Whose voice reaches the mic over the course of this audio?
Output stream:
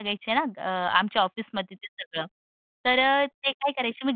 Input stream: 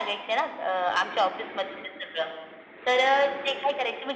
echo only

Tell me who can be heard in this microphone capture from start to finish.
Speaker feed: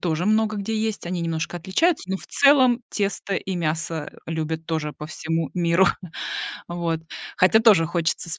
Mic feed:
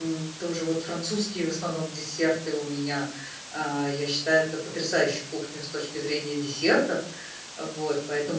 user only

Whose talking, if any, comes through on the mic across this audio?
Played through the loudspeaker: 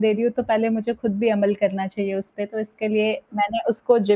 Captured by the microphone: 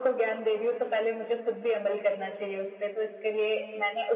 echo only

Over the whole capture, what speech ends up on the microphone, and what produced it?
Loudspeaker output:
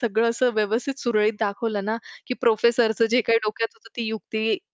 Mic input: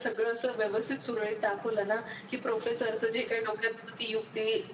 echo only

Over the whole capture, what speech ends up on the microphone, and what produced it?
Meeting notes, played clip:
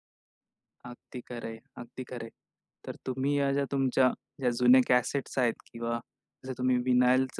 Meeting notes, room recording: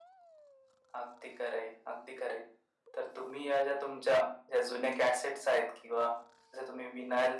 echo only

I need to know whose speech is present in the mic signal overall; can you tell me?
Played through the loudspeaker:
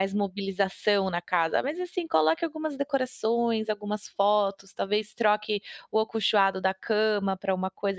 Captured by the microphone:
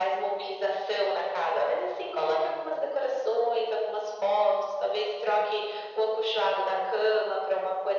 echo only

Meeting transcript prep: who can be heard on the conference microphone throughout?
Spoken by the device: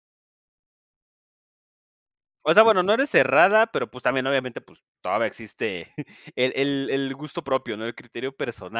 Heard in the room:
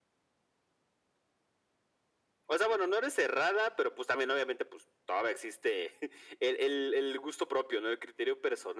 echo only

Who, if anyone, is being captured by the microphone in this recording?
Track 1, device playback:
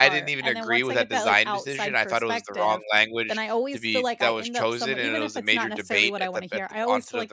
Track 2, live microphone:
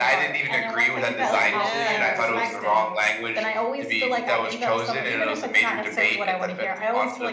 both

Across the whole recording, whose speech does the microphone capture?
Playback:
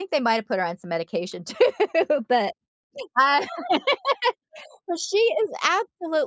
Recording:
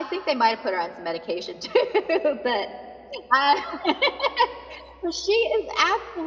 echo only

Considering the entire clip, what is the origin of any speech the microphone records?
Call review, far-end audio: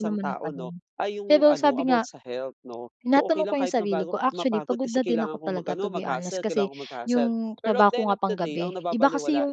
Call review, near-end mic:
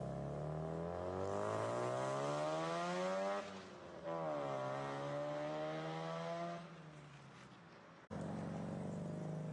neither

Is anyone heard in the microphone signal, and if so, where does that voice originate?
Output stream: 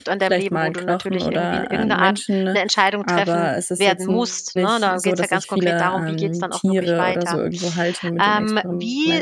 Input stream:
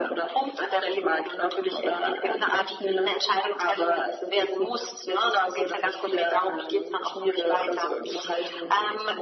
echo only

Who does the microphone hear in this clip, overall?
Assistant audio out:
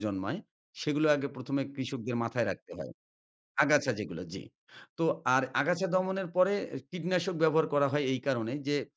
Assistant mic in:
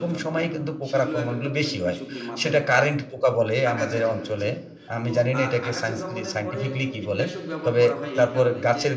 both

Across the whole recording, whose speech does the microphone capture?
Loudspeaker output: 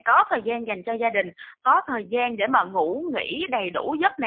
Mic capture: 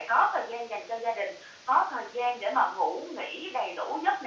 echo only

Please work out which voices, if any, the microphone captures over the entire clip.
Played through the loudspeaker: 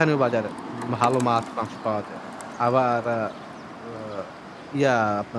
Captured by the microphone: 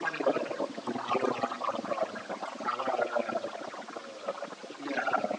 echo only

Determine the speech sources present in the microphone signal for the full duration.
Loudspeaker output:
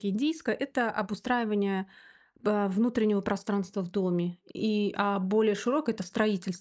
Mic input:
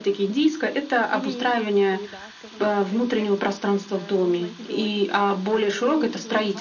both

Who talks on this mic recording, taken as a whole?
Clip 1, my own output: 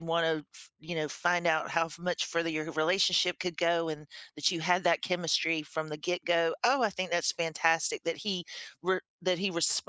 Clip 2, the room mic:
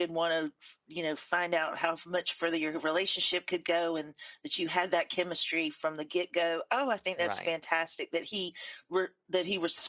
both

